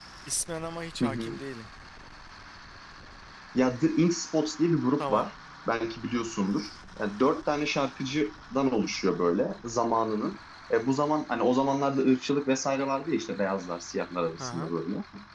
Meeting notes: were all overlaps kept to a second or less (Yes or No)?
Yes